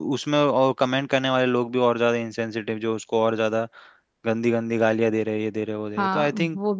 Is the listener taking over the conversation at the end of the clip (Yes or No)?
Yes